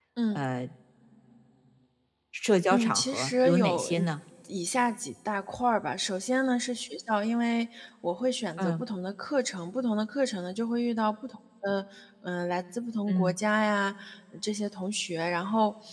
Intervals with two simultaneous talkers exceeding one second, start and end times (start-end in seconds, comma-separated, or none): 2.7-4.1